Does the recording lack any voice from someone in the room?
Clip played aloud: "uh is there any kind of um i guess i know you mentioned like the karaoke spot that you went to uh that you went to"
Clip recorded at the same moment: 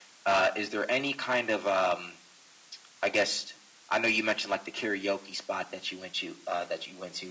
Yes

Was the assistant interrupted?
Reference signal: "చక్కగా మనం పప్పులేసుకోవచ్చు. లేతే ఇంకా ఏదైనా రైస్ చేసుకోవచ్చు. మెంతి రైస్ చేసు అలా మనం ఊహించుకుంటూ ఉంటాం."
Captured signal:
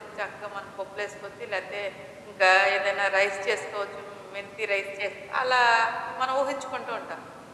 No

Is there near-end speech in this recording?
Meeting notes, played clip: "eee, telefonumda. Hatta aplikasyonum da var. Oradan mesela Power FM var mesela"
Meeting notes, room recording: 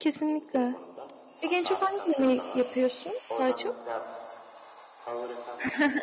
Yes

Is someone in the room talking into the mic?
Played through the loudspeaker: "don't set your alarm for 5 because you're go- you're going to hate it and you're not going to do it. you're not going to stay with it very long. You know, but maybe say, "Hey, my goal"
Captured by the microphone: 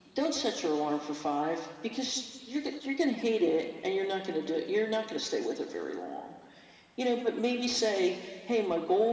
No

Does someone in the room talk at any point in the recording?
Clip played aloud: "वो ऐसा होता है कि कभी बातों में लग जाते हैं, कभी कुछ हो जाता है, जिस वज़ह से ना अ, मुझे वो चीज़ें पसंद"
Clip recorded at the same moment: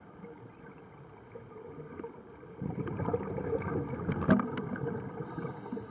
No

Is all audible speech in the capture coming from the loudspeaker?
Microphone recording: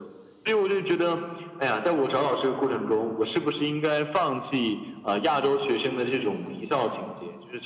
Yes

